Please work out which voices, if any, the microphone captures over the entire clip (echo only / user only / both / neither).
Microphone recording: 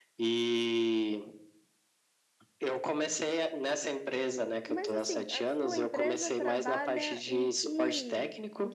both